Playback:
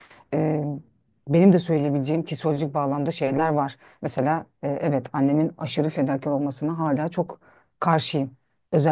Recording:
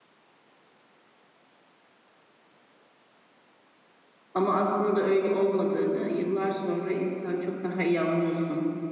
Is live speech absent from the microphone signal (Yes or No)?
No